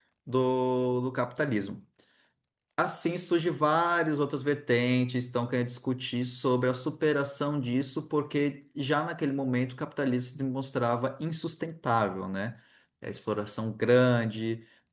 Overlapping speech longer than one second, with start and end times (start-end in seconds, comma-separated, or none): none